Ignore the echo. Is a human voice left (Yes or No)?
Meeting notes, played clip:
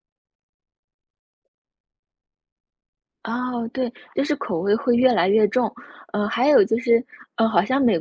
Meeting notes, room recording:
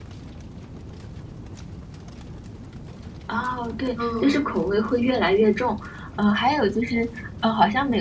Yes